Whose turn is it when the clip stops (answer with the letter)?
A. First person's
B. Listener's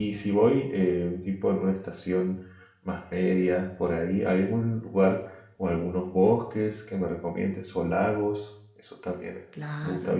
B